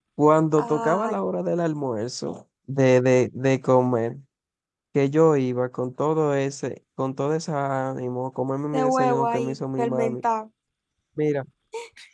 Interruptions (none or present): present